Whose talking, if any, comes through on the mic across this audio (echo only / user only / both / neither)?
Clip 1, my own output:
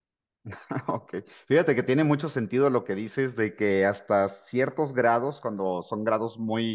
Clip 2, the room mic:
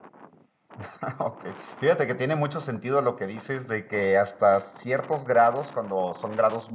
echo only